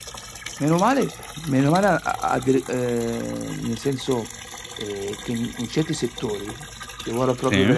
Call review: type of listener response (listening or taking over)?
listening